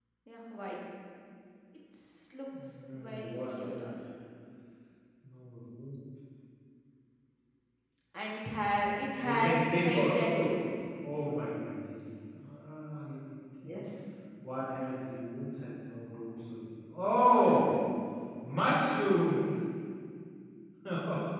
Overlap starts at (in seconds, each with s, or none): 2.6 s